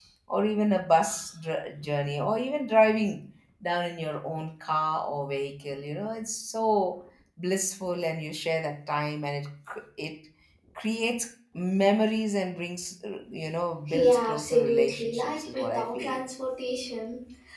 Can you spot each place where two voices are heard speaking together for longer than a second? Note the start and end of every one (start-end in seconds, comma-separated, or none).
13.9-16.2